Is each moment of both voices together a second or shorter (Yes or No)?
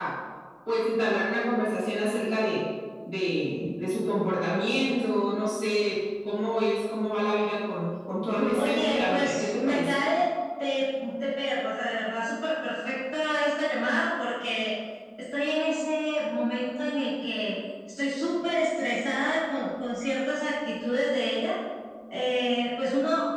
No